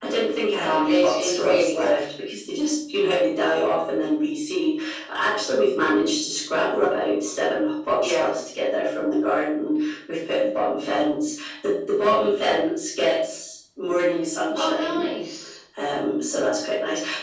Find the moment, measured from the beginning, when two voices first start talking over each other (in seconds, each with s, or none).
0.6 s